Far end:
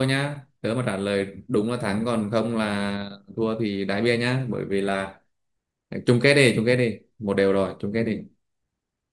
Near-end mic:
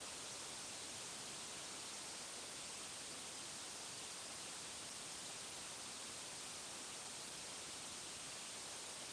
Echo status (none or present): none